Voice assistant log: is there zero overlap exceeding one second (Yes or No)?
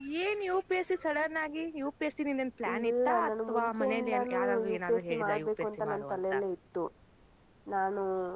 No